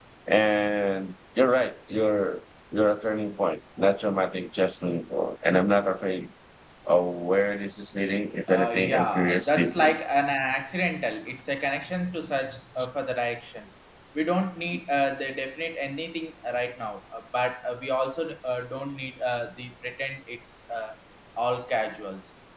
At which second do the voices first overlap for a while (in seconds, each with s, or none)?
8.5 s